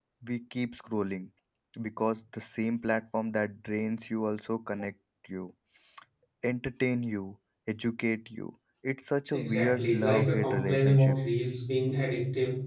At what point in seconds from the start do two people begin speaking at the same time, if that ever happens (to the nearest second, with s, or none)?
9 s